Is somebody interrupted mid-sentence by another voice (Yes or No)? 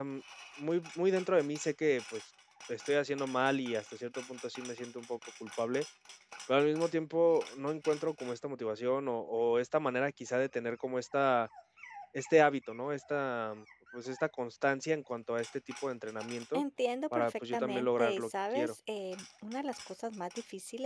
Yes